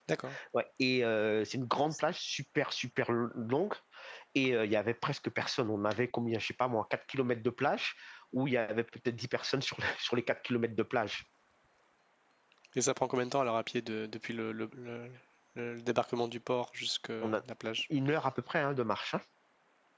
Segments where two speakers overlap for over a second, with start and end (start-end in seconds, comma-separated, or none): none